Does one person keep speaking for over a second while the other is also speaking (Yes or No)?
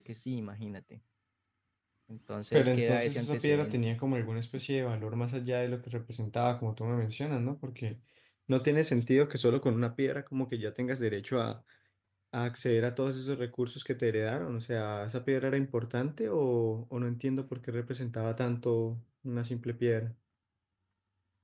Yes